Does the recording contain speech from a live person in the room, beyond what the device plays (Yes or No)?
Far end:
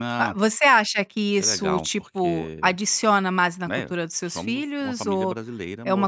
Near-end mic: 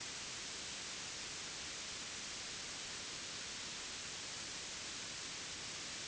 No